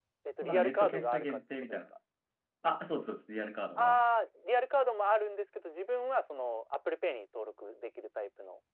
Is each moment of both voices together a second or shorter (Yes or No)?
No